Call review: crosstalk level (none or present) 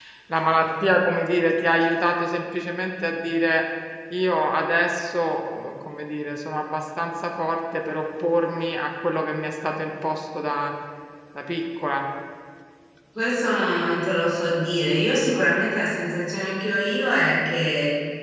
none